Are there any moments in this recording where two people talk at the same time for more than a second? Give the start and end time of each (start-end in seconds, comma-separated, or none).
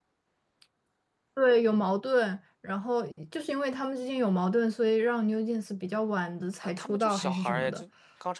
6.6-7.8